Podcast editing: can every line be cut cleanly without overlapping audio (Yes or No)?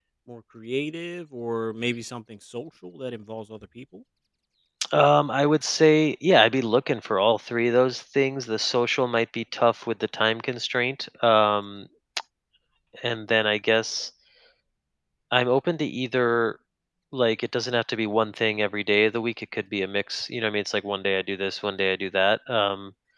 Yes